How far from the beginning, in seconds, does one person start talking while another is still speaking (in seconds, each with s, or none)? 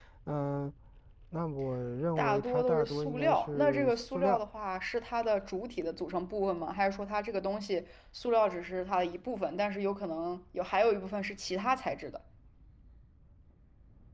2.2 s